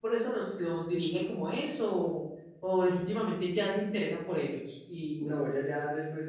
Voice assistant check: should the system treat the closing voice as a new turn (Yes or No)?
Yes